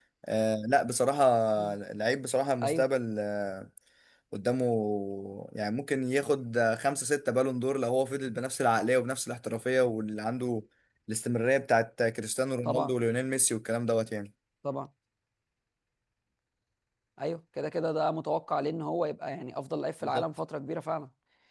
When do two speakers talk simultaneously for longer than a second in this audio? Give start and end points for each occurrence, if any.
none

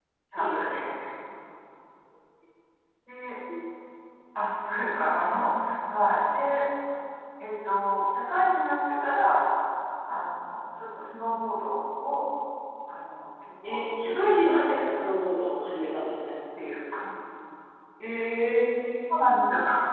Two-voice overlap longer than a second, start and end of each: 13.6-15.1

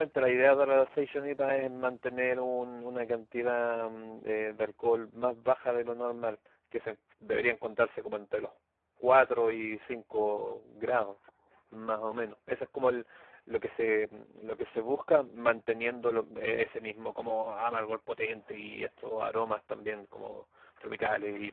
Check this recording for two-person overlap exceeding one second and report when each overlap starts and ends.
none

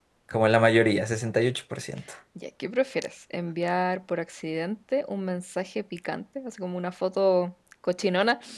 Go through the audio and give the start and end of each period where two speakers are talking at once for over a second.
none

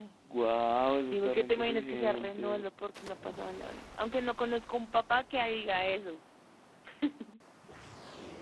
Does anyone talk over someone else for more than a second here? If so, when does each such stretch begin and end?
1.1-2.6

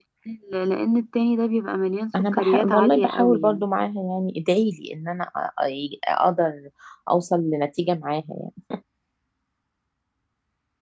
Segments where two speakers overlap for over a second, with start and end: 2.3-3.6

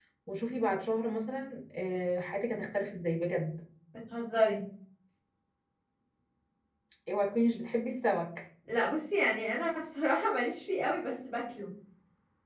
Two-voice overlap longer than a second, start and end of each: none

